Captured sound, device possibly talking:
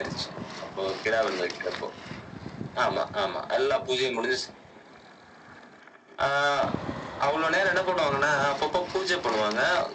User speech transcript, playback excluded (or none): none